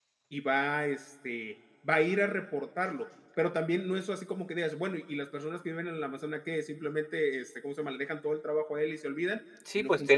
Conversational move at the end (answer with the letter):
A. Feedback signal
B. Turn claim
B